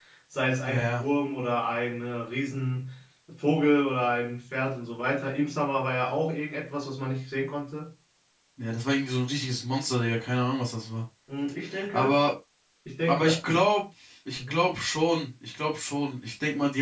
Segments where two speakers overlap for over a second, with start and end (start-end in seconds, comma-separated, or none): none